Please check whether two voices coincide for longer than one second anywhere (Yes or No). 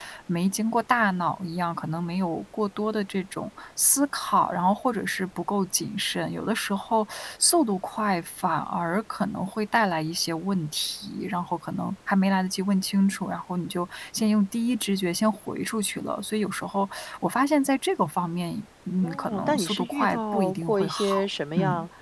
Yes